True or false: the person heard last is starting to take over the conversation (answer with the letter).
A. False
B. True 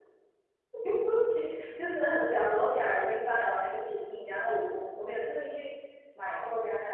A